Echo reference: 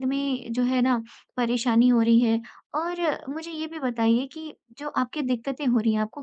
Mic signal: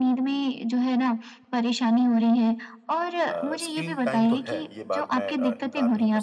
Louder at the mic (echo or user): echo